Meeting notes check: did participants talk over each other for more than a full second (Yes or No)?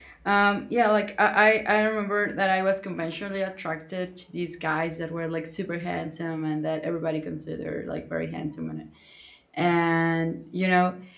No